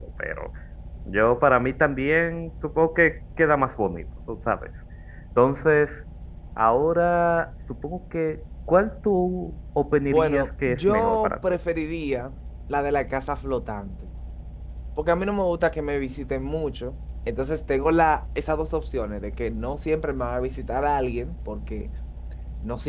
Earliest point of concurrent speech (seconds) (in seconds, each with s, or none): 10.0 s